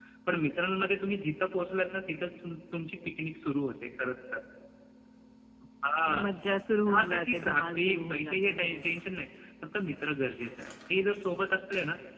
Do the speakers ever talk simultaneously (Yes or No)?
Yes